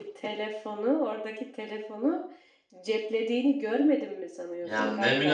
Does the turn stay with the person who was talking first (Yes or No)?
No